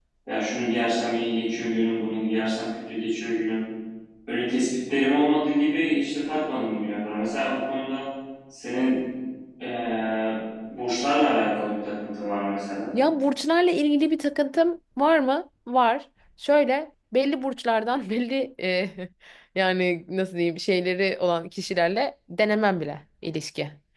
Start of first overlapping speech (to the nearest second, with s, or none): none